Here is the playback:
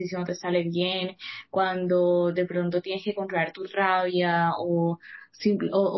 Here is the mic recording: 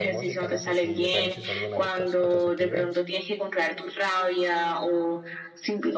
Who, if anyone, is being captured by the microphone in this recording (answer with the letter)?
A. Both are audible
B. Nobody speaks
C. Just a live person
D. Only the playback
A